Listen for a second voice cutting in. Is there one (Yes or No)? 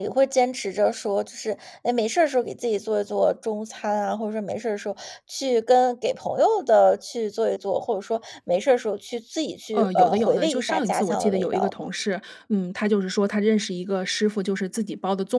Yes